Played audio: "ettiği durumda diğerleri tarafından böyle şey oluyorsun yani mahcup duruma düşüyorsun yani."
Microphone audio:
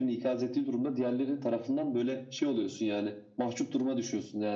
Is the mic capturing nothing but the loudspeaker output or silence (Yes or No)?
Yes